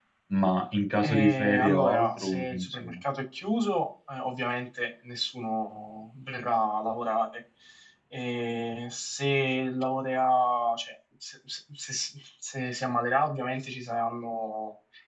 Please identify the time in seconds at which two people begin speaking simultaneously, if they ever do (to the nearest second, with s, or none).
1 s